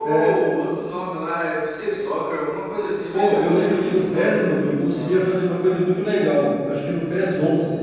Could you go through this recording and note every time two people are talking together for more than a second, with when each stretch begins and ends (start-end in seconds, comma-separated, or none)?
3.1-5.1